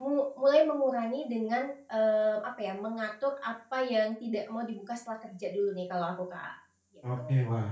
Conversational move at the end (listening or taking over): taking over